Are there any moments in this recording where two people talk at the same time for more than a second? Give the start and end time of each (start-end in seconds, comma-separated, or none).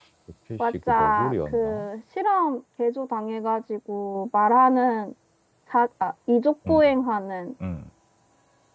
0.6-1.8